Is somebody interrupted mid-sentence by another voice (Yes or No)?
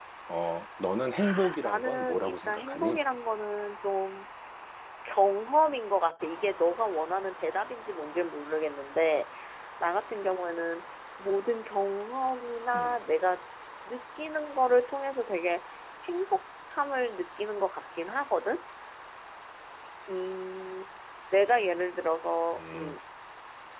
Yes